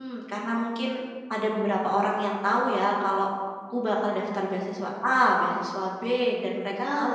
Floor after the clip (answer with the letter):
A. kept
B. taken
A